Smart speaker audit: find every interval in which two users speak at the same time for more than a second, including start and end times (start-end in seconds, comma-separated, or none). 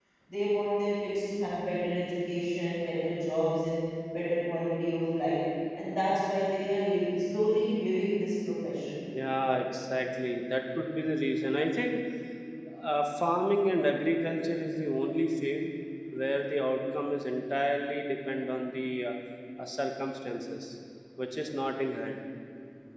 none